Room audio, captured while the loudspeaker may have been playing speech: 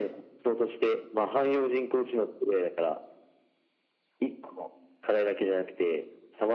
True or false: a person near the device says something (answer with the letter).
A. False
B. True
A